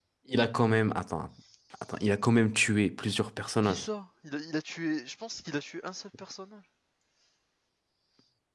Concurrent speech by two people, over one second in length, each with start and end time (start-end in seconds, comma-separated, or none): none